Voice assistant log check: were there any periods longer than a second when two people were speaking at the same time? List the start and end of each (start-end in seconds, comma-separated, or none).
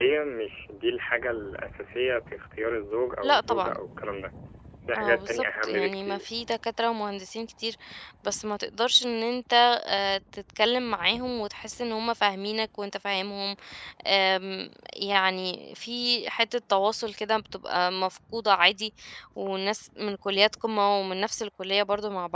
5.0-6.3